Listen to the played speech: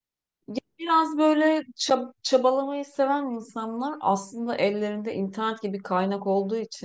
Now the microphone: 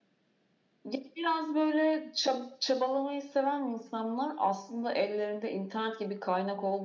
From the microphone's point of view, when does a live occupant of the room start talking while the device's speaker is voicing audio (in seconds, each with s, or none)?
none